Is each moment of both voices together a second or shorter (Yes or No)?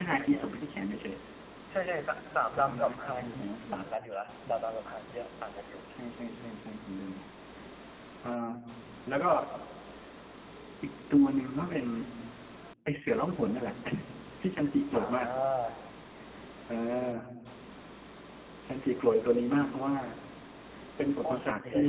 No